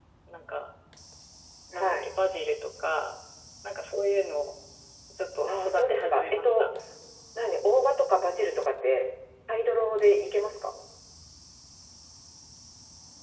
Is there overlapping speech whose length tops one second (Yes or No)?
Yes